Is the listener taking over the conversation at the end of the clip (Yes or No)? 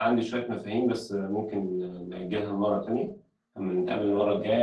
No